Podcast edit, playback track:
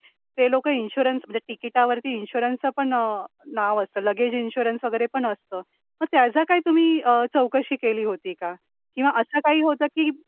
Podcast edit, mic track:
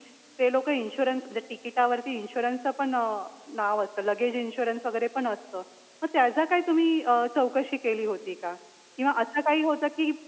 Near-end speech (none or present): none